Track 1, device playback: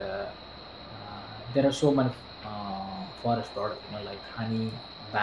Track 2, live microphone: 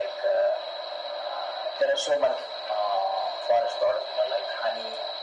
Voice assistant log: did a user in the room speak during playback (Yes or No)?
No